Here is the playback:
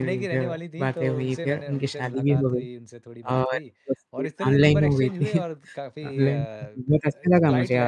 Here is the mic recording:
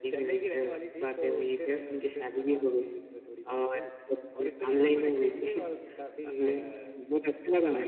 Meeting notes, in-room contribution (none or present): none